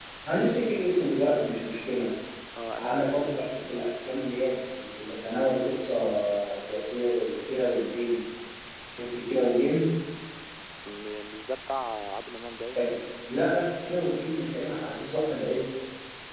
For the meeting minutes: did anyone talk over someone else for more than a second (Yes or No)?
No